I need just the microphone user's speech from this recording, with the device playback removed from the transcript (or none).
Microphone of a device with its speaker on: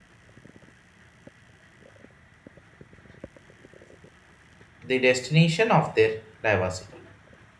the destination of their diversity